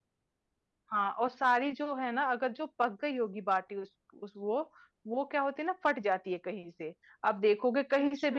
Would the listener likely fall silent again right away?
Yes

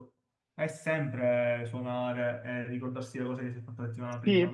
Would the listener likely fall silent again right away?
No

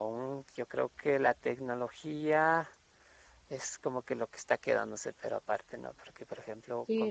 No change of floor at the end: No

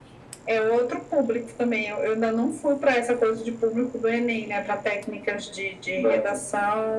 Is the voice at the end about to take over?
No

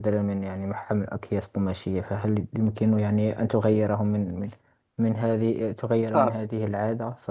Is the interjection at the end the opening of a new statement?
No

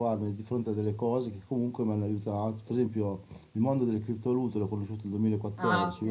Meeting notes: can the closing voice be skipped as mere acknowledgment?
Yes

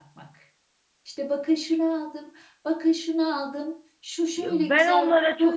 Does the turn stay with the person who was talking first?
No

